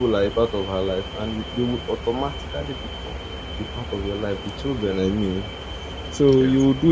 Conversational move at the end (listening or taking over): listening